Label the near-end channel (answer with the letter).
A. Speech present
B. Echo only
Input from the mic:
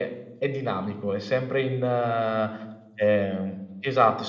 B